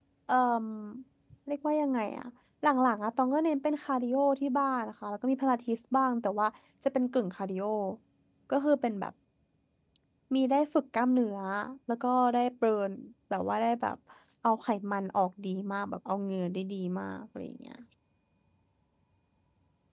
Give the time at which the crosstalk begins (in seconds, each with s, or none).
none